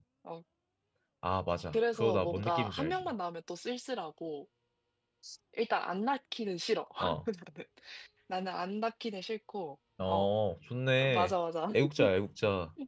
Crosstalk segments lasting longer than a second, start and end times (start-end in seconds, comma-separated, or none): 1.7-3.1